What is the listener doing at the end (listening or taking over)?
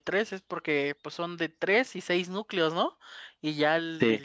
listening